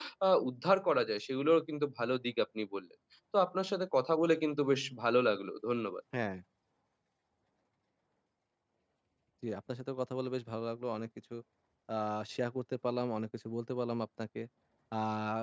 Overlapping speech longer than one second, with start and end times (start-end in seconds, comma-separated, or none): none